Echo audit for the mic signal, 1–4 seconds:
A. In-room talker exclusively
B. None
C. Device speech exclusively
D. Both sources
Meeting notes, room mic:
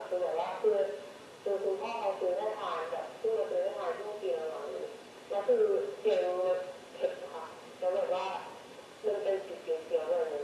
C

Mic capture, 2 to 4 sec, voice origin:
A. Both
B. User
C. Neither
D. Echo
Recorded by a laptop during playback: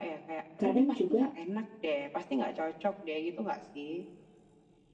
D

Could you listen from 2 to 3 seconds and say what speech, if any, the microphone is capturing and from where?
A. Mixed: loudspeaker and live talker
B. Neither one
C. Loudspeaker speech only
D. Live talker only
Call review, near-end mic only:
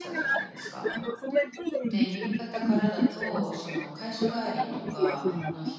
A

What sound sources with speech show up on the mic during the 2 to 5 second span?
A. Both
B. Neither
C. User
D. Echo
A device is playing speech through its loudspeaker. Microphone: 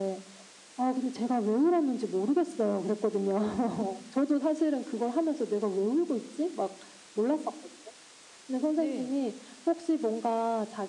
D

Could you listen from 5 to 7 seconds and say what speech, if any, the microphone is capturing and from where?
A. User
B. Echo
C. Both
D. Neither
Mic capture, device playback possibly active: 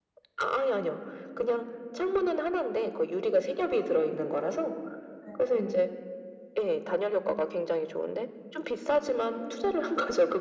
C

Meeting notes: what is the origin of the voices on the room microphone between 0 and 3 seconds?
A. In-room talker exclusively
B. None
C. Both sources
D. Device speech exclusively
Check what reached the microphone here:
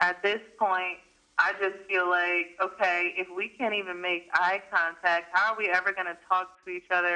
D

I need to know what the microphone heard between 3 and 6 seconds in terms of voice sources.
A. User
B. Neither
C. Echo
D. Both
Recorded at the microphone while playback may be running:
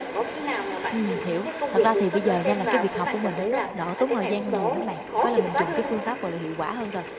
D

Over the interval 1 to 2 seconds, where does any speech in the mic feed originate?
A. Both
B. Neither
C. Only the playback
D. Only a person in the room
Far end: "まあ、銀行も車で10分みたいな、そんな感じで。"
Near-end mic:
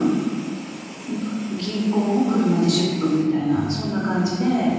C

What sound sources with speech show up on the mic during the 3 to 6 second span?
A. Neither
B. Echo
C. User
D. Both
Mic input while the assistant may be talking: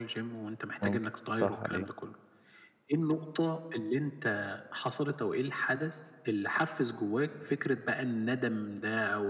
B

